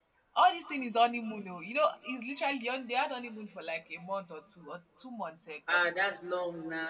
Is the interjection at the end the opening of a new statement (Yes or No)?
Yes